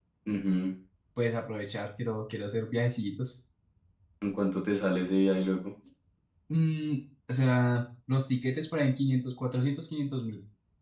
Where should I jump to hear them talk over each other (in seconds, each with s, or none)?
none